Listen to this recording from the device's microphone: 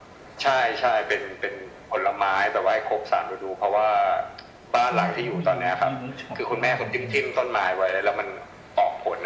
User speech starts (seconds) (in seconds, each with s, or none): 4.9 s